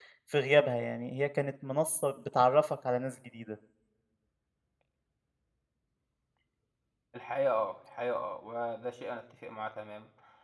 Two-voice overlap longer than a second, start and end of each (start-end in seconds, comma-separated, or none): none